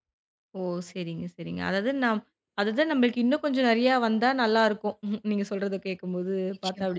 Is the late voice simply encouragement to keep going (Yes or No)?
Yes